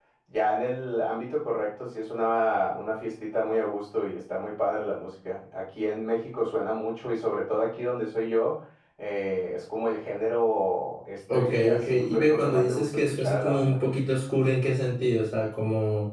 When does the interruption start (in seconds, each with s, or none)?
11.3 s